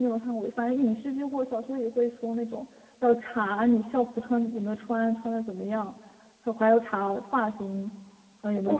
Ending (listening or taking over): taking over